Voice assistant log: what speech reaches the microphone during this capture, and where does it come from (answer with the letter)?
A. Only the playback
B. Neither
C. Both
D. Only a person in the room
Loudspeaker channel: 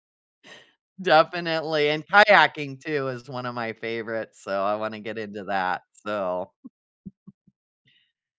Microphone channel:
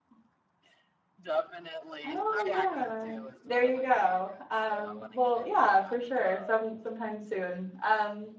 C